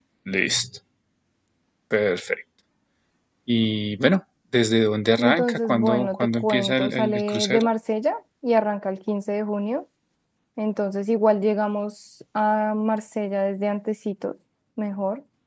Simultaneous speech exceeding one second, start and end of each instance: 5.2-7.7

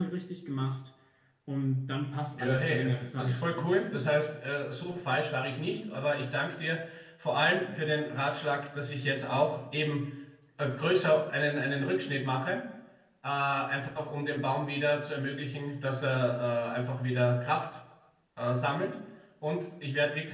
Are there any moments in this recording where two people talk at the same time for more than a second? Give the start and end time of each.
2.3-3.7

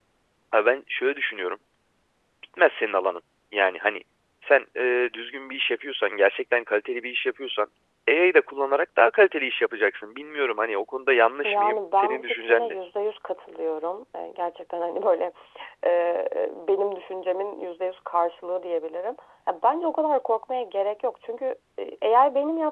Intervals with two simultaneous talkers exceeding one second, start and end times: 11.4-12.8

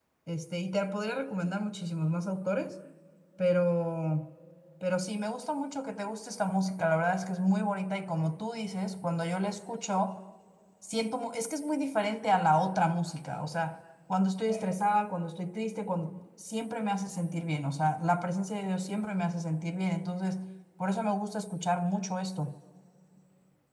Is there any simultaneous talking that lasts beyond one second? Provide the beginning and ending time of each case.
none

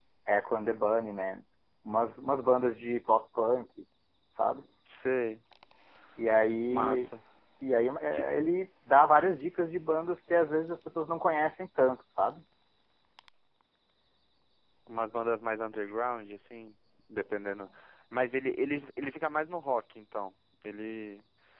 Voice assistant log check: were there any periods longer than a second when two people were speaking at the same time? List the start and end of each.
none

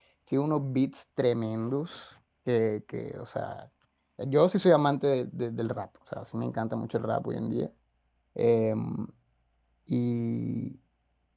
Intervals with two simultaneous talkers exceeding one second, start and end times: none

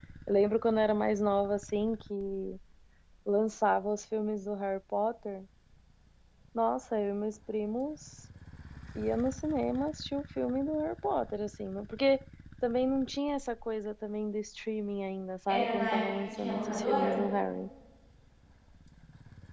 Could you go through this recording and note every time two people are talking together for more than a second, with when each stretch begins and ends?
15.5-17.2

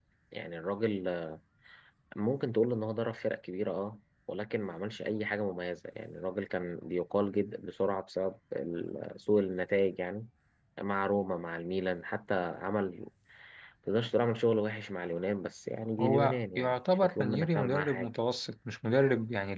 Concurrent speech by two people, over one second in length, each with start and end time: 16.0-18.1

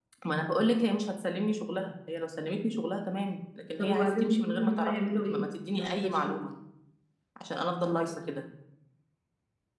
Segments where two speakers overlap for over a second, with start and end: 3.8-6.3

